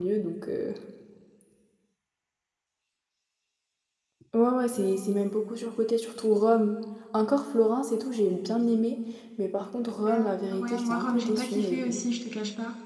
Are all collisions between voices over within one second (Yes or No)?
No